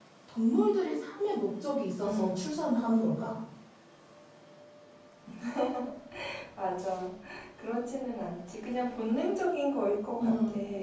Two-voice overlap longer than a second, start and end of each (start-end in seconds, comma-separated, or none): none